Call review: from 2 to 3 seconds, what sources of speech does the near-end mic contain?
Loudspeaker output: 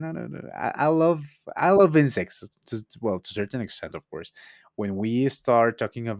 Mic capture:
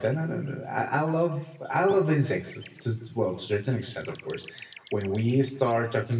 echo only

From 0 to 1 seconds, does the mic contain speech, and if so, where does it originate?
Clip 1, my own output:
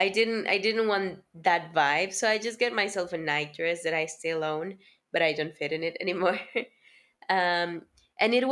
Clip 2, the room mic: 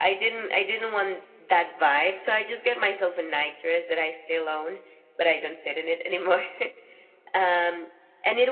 echo only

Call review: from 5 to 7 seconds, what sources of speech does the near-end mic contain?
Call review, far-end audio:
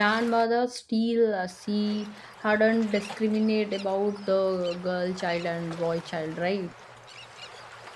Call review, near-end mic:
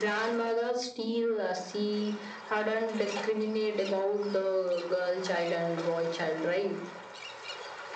echo only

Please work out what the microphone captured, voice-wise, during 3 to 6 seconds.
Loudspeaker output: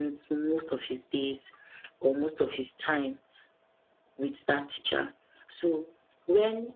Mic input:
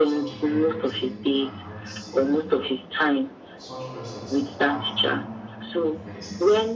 both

